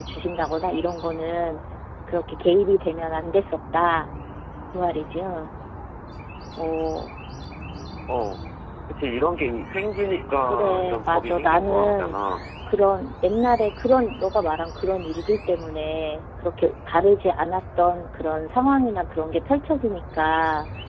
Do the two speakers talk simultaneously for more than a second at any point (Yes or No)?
Yes